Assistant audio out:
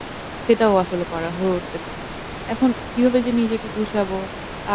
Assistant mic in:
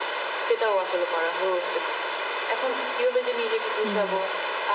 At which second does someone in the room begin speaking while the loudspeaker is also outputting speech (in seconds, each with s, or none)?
3.8 s